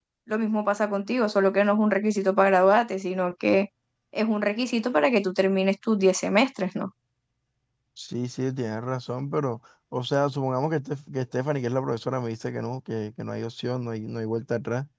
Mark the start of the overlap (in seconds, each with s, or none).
none